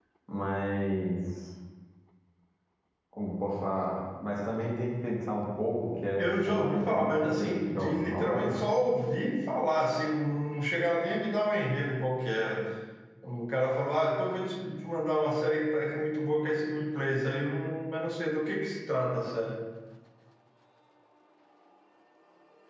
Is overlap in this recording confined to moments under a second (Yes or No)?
No